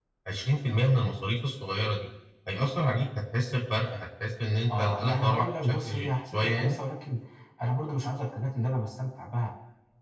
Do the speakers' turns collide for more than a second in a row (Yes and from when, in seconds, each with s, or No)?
Yes, from 4.7 s